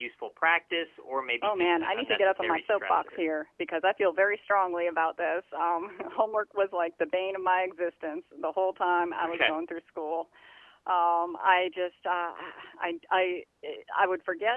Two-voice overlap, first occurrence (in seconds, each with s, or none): 1.4 s